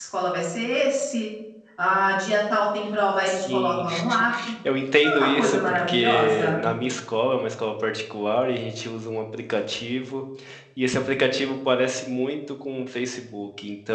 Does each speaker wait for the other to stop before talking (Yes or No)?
No